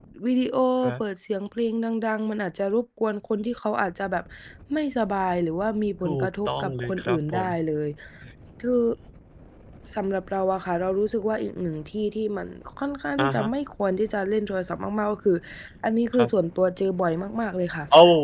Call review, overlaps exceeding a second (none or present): present